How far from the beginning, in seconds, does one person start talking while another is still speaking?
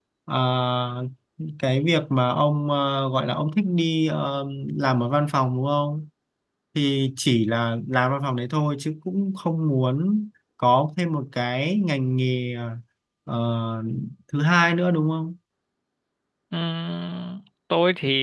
none

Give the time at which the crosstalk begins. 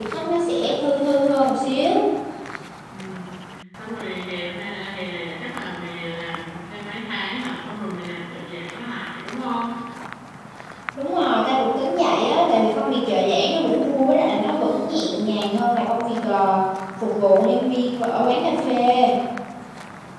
none

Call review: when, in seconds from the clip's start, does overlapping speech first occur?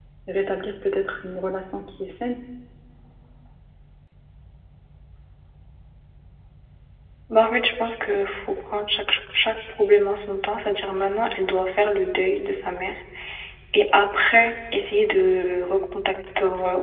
none

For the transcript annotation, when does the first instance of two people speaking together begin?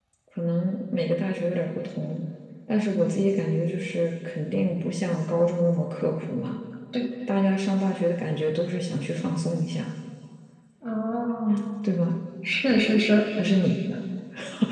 none

